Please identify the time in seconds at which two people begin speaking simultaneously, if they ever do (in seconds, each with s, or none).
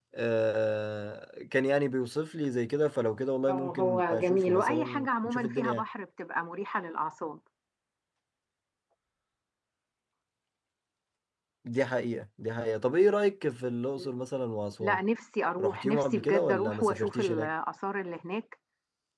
3.5 s